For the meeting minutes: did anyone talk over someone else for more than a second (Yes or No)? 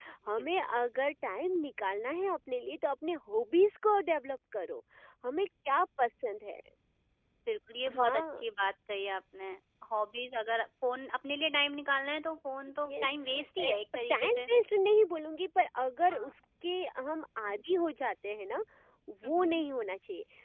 No